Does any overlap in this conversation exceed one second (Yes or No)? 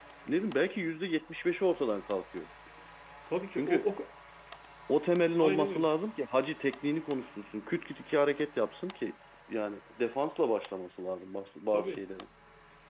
No